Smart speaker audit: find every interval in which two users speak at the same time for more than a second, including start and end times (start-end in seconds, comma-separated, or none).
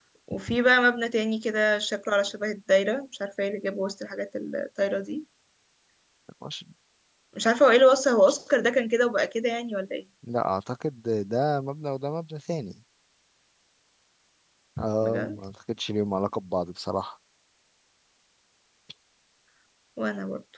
none